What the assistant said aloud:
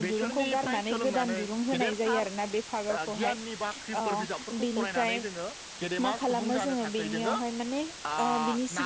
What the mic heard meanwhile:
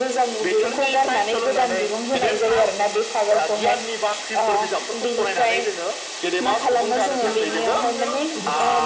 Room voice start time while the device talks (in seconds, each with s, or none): 7.2 s